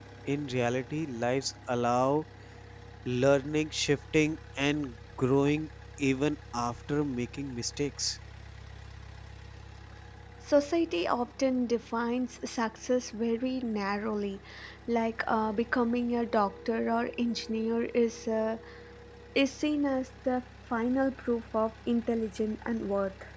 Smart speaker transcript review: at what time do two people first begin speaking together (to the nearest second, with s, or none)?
none